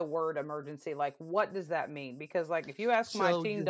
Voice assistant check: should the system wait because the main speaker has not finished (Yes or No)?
Yes